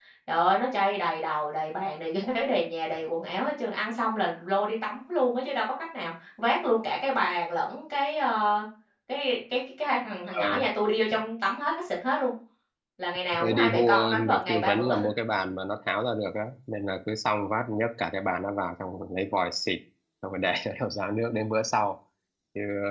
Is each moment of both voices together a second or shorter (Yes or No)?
No